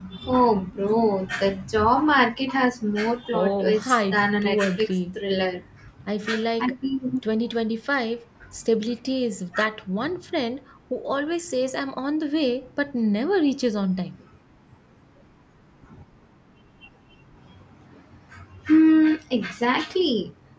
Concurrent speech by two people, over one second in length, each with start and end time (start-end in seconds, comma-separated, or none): 3.3-5.2